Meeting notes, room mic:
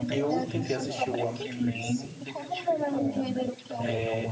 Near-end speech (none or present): present